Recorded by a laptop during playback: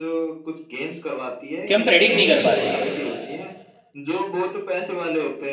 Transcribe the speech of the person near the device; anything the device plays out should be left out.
कि हम प्रेडिक्ट नहीं कर पाते

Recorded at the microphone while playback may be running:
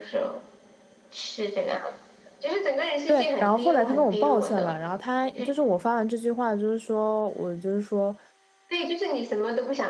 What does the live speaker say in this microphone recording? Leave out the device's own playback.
对，然后后来他跟我抱歉了，然后他就是我发完这句话，就是说我就是说。

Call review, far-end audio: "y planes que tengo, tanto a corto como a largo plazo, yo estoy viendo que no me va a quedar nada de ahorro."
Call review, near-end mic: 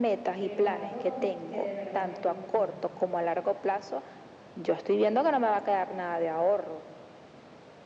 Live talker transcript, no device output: Pero algo don- que de verdad me gusta.

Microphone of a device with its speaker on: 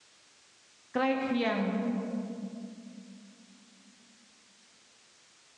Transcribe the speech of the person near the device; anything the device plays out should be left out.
ใกล้เคียง

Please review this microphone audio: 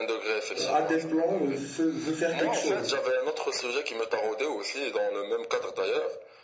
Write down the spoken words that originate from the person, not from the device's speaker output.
euh, a des plans ou veut, veut faire quelque chose.

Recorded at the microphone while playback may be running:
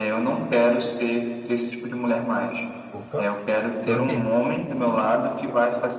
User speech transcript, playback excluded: Opa, tô aqui.

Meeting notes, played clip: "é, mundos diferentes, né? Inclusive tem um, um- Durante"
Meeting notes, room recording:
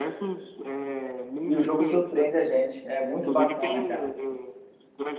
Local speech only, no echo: E o jogo surpreende a gente. É muito bacana, cara.

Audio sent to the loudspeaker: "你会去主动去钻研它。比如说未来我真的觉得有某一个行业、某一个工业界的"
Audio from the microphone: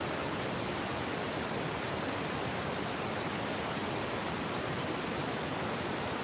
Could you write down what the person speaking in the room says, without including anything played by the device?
none

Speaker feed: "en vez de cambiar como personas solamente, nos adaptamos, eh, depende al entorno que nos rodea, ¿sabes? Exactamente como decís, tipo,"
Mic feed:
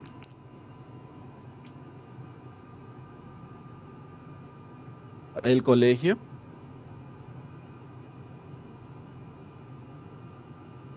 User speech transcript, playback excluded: el colegio,

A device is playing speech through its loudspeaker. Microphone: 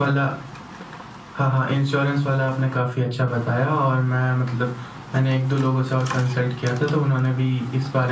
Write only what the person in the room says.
none

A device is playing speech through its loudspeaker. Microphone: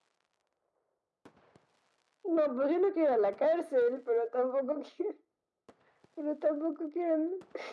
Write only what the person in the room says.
none

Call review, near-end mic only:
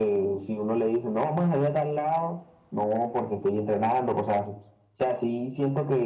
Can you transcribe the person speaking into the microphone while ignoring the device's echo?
none

